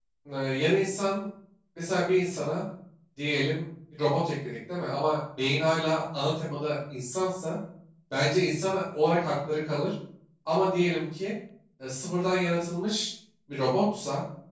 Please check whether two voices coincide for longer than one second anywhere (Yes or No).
No